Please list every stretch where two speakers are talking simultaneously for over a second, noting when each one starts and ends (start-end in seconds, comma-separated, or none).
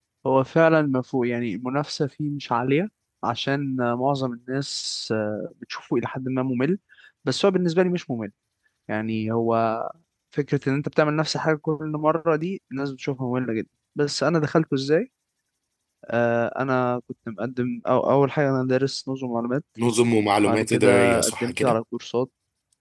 20.5-21.8